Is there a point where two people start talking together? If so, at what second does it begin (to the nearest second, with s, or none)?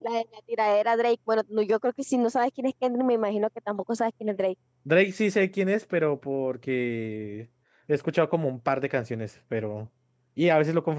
none